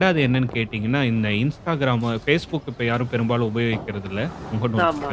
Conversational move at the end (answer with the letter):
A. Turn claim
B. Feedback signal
B